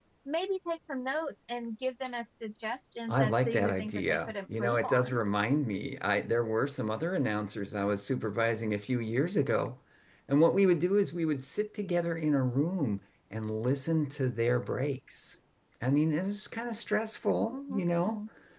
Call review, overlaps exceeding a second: present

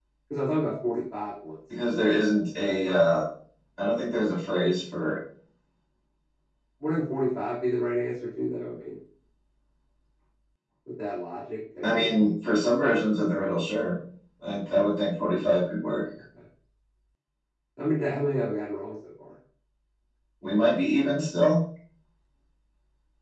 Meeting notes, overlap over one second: none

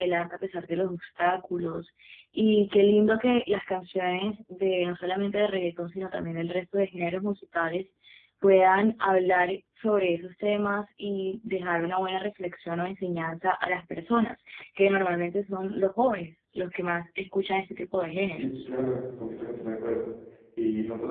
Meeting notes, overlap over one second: none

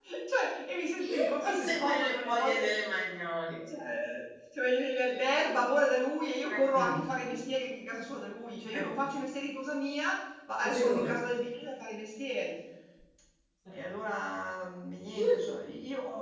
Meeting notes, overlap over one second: present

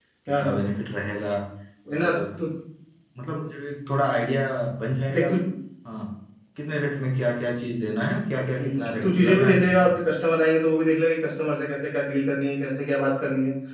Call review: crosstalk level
present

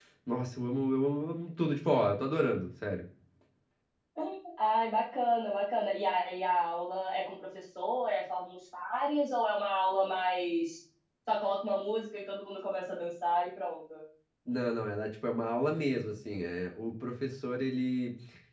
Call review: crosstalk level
none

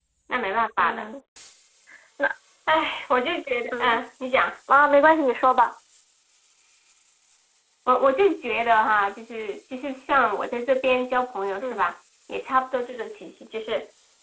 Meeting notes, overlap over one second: none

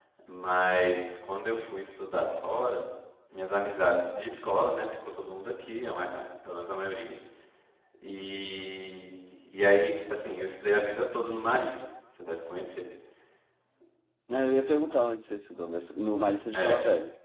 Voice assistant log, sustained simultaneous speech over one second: none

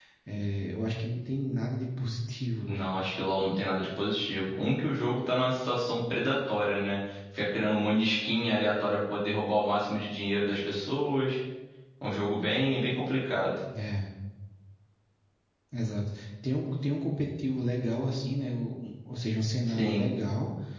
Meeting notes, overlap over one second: none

